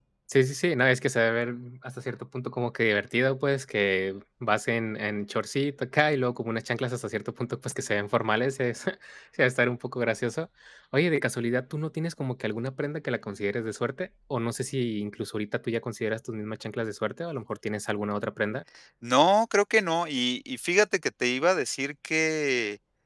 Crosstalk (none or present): none